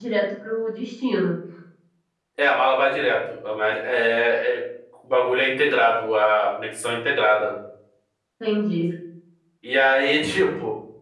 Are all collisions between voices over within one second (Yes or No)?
Yes